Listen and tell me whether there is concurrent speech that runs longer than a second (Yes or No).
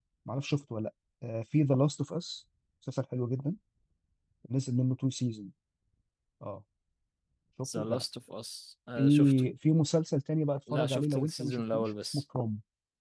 Yes